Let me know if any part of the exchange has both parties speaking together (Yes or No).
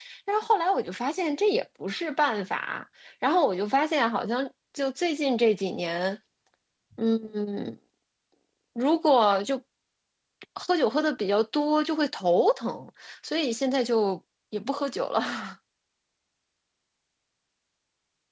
No